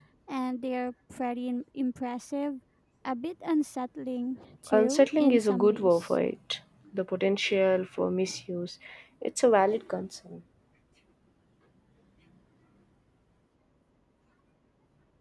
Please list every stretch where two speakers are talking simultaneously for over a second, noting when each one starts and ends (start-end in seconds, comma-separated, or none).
4.7-6.2